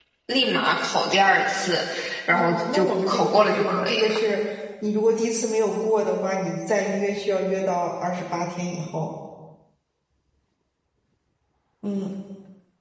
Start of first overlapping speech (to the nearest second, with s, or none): 2 s